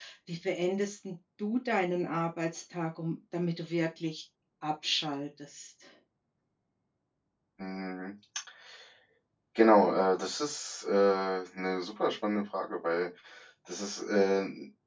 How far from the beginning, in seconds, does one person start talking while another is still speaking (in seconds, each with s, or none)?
none